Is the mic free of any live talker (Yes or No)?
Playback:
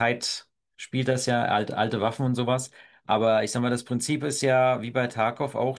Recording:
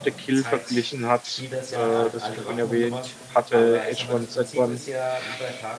No